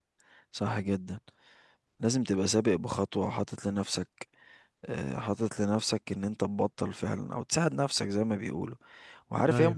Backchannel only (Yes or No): Yes